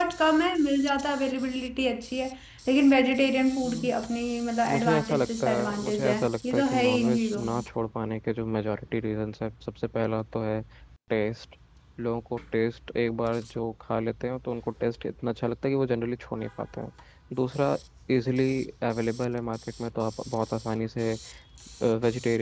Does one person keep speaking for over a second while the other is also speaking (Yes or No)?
Yes